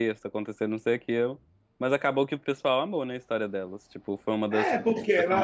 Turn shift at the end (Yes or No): Yes